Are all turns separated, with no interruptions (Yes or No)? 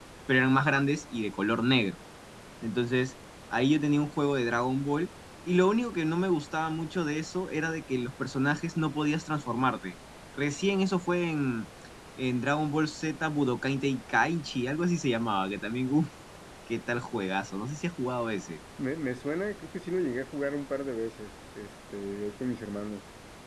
Yes